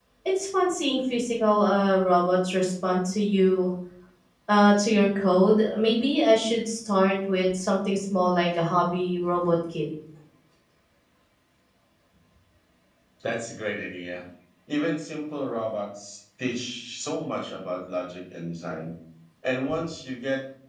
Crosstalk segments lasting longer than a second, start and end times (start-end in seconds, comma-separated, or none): none